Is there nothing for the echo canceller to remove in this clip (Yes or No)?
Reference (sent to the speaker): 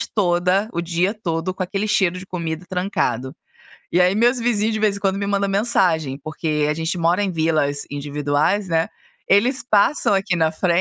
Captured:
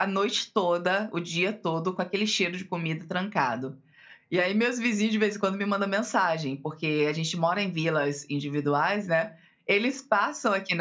No